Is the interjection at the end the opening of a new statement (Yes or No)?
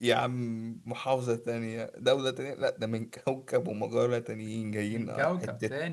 Yes